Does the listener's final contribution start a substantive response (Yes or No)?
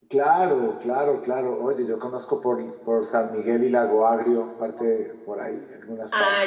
Yes